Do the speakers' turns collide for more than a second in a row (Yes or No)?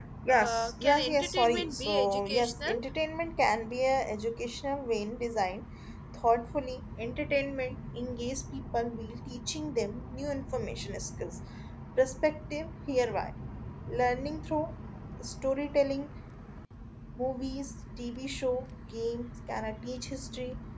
Yes